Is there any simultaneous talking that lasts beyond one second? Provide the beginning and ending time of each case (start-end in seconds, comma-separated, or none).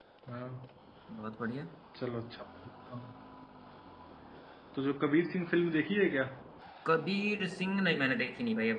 none